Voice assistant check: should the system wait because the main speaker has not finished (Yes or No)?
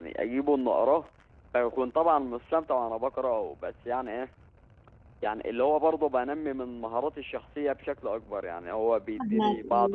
Yes